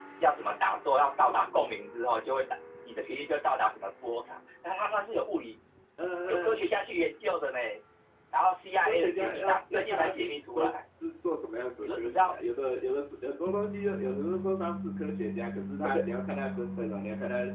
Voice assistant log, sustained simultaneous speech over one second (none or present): present